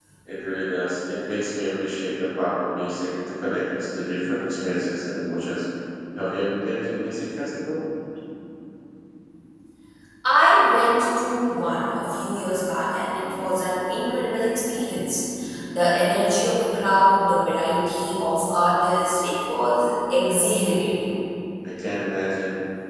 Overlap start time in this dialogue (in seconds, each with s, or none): none